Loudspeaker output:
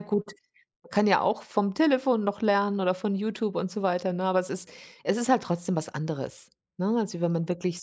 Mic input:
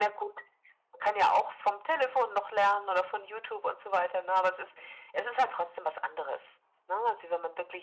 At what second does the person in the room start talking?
none

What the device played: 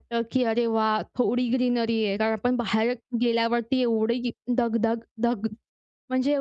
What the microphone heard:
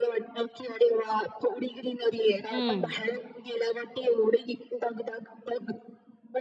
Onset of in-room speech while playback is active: 2.5 s

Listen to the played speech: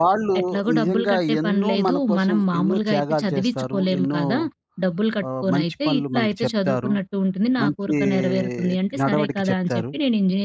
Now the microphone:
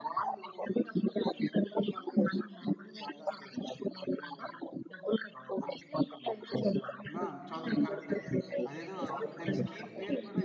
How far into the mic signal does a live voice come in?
7.2 s

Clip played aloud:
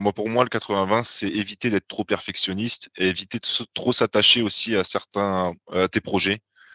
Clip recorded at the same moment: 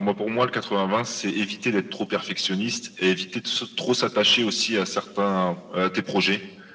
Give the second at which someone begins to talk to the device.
none

